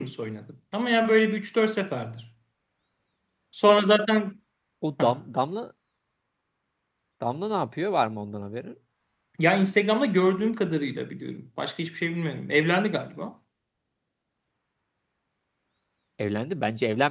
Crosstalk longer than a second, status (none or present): none